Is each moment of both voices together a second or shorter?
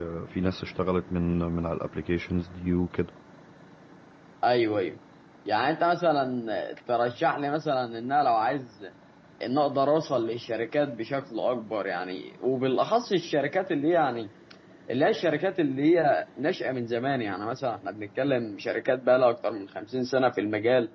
Yes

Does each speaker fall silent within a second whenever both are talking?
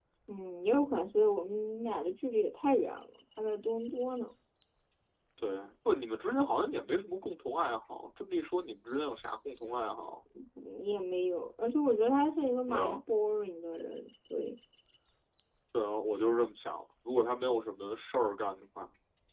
Yes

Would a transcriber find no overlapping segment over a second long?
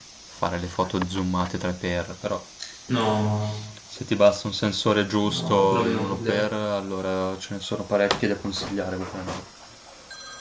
No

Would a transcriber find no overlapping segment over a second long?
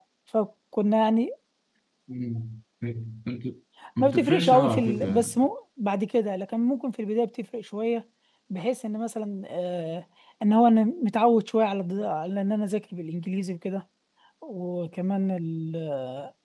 No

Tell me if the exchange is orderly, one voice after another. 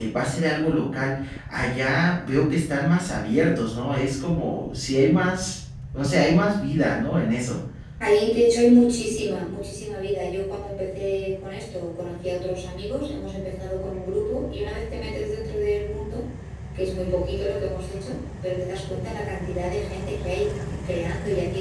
Yes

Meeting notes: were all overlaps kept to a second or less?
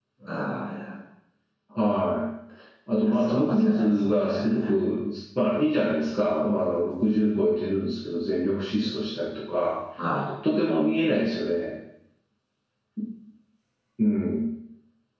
No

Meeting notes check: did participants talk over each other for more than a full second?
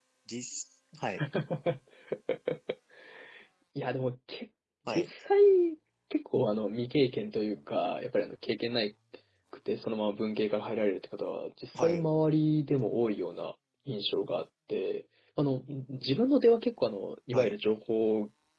No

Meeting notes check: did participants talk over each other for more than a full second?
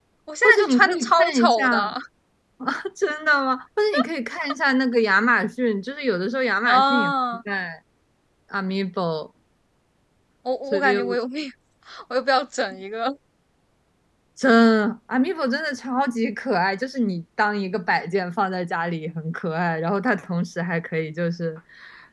Yes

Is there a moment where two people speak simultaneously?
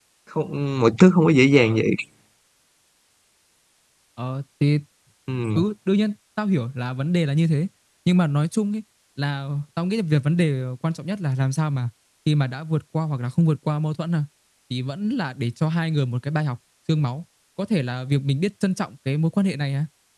No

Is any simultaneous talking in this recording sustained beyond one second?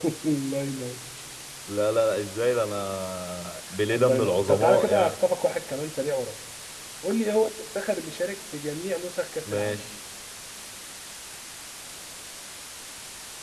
Yes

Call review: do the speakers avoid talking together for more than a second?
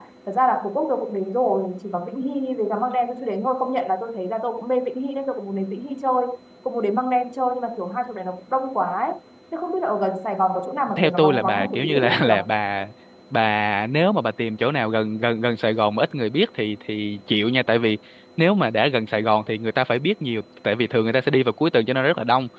No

